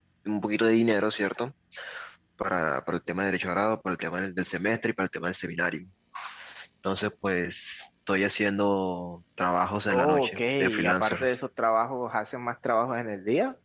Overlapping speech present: Yes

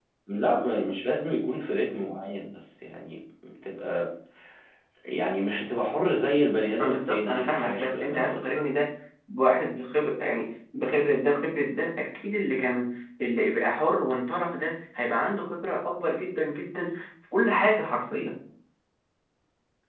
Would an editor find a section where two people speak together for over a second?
Yes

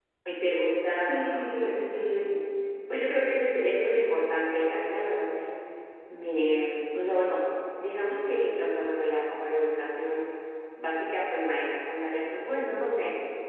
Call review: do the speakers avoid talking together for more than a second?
No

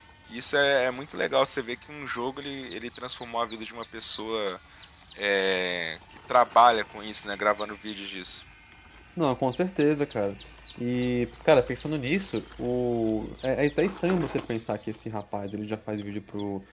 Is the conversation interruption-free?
Yes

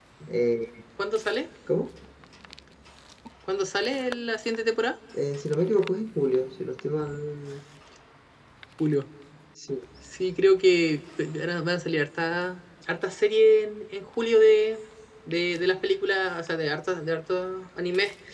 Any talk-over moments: No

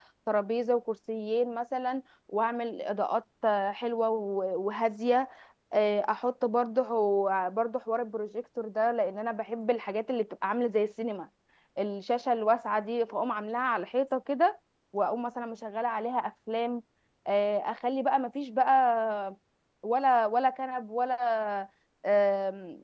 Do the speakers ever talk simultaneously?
No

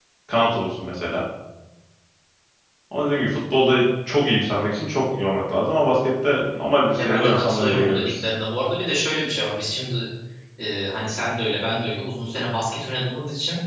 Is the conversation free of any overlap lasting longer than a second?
No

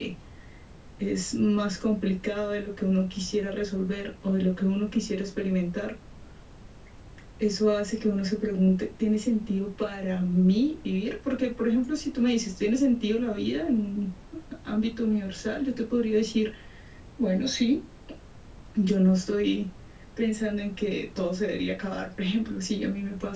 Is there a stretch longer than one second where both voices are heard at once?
No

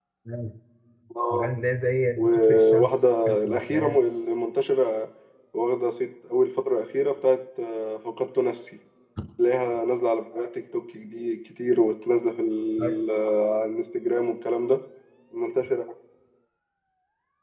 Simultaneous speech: Yes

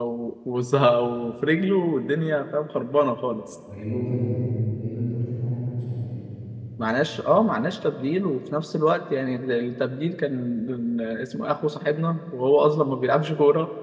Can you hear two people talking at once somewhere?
No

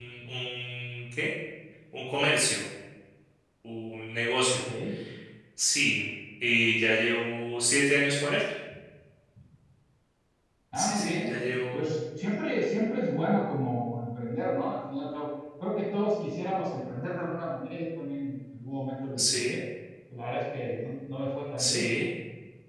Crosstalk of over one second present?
No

